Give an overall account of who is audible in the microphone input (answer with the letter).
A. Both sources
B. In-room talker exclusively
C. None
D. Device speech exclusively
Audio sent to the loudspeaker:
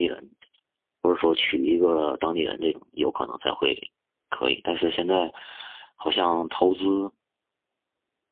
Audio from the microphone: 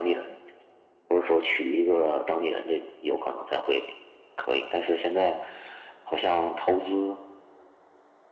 D